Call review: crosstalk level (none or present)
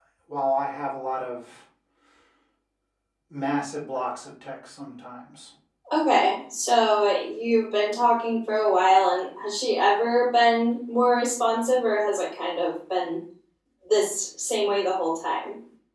none